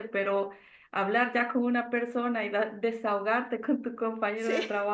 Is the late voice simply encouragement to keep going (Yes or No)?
Yes